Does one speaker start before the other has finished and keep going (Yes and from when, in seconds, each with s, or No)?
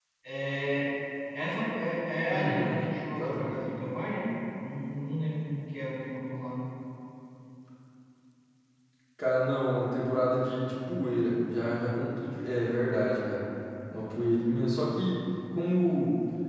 Yes, from 2.3 s